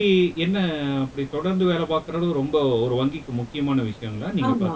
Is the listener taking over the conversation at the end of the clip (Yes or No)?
Yes